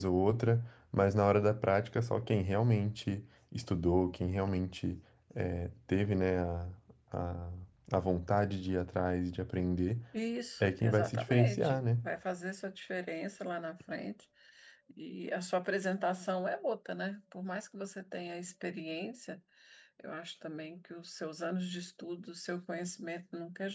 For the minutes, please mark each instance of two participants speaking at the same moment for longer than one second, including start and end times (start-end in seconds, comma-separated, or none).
10.6-11.8